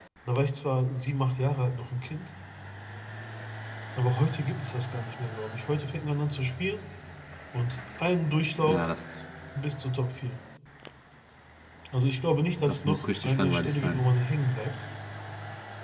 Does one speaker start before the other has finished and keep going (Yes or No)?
Yes